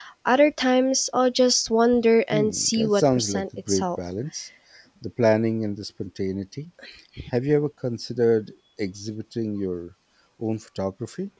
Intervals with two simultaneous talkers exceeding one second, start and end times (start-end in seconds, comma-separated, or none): 2.3-4.0